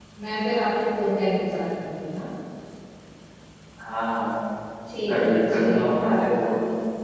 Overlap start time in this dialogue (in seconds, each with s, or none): 5.1 s